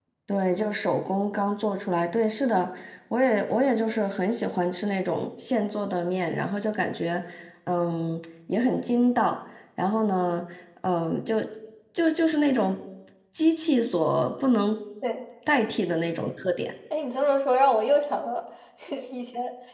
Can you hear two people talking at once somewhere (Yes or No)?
No